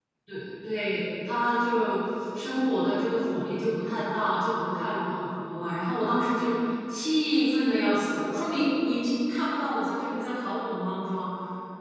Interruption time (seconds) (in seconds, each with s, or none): none